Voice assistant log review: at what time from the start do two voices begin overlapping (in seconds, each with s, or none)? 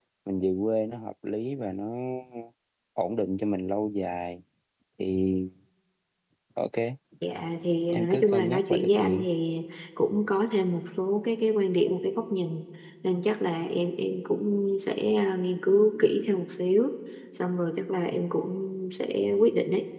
7.9 s